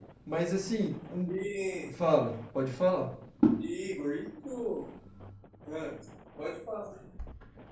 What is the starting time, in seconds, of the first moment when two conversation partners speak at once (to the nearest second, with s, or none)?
none